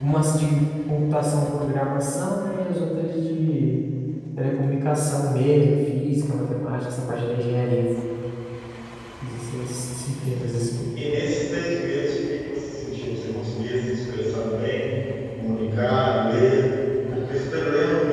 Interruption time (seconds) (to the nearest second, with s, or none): none